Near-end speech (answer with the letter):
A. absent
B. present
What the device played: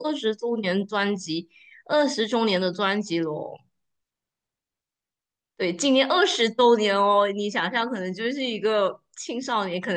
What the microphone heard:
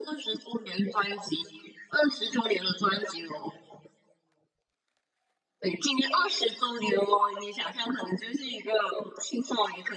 A